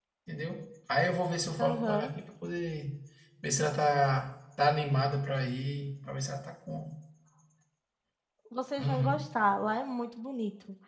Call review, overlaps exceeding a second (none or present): none